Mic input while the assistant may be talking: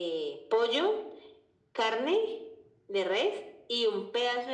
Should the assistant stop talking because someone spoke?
No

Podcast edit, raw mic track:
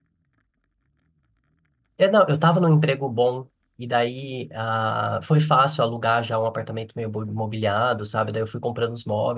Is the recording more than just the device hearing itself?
Yes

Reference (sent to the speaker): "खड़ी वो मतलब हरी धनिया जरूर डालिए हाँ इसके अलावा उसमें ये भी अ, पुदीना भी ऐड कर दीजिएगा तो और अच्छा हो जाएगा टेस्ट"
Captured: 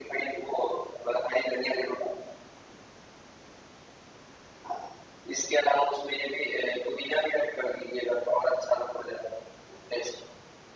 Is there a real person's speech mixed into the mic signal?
No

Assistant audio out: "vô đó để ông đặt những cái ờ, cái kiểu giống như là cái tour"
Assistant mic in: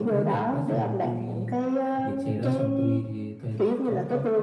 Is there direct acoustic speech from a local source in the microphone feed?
Yes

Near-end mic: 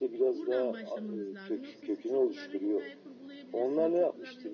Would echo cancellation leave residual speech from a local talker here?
Yes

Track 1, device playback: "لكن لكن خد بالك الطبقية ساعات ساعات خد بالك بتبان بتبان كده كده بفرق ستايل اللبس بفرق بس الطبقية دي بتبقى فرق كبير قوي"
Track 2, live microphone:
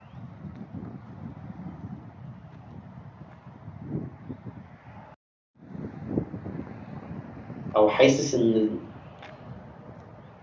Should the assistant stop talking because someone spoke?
Yes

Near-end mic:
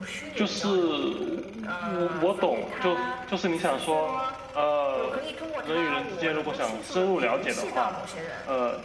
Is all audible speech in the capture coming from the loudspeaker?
No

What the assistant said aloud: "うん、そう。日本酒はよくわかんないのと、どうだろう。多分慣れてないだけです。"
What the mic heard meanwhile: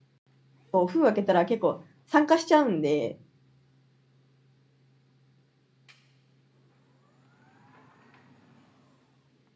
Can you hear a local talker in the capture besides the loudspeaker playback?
Yes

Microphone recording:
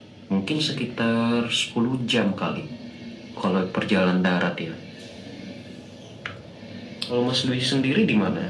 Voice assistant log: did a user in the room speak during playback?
No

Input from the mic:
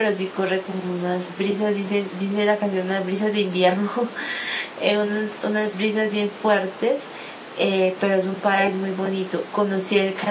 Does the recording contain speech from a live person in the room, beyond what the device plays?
Yes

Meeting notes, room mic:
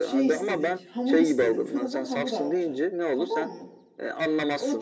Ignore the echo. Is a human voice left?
Yes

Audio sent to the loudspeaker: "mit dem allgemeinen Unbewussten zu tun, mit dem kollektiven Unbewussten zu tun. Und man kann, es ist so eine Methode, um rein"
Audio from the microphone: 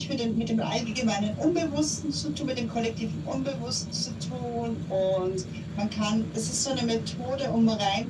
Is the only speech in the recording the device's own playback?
Yes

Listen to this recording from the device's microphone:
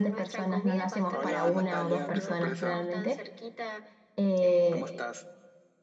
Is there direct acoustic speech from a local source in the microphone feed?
Yes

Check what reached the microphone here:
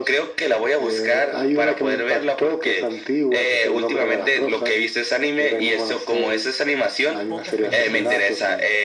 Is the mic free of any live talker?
No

